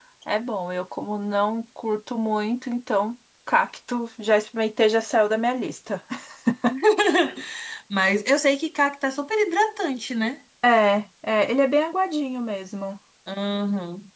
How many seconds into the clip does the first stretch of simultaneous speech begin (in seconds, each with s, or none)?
none